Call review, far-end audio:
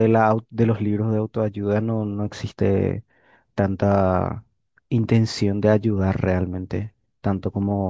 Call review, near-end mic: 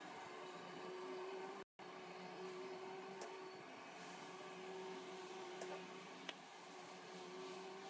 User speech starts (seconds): none

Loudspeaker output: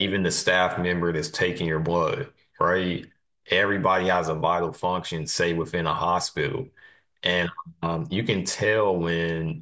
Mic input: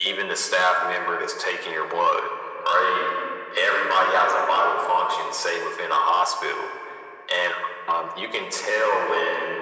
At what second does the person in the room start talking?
none

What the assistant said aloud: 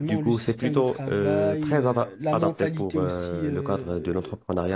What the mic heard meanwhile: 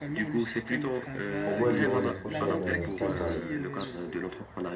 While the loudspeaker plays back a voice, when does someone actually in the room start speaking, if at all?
1.5 s

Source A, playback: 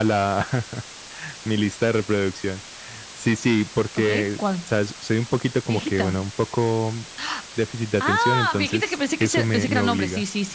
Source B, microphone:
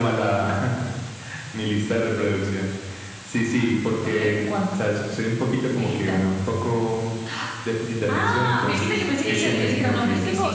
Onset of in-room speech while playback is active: 8.6 s

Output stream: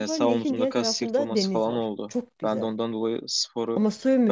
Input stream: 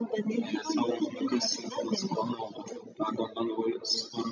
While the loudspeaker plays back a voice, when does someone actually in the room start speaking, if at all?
none

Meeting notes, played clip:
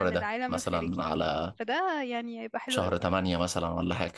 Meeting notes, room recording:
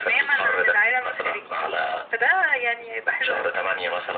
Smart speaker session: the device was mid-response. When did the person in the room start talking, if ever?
none

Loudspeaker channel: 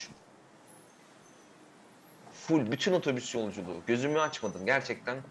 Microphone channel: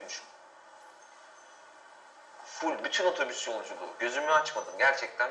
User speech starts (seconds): none

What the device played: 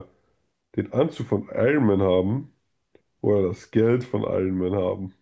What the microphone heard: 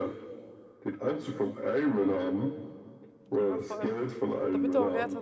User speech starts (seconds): 3.4 s

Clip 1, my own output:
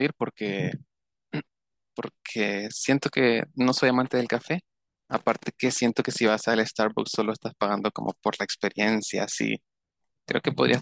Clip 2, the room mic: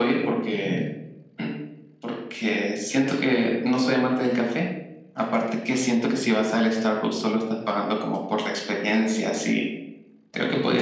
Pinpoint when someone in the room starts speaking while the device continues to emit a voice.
none

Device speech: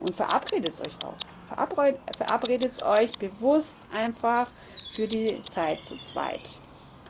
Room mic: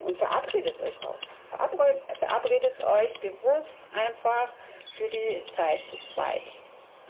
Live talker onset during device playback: none

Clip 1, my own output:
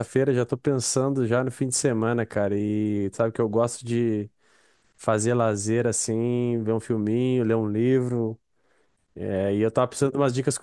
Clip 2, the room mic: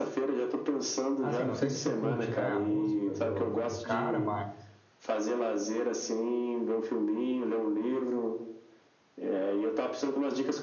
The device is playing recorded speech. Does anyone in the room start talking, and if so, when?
1.2 s

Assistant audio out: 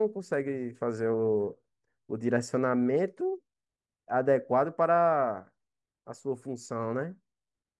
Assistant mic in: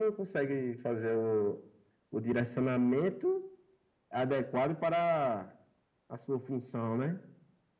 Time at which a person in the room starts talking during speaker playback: none

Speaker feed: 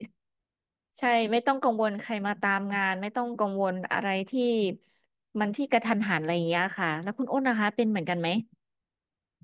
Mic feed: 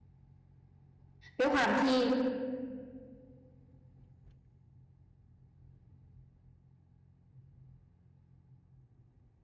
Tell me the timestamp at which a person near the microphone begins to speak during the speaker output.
1.4 s

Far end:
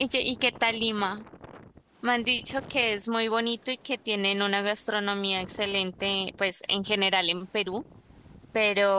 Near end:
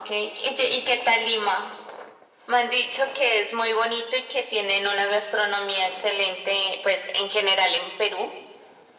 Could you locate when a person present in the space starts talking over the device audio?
none

